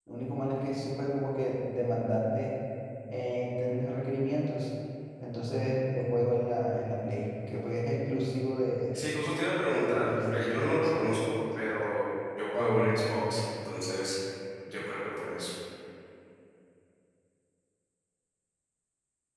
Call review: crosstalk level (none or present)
present